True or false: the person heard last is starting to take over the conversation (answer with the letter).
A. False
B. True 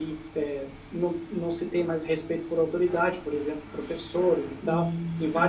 B